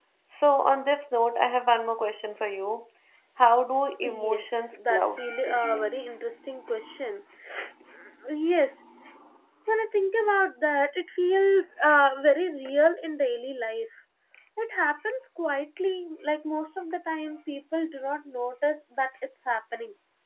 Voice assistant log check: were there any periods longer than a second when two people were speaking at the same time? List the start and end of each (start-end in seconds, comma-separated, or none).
4.0-6.0